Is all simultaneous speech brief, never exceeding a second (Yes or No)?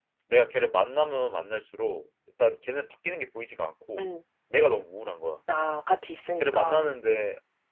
Yes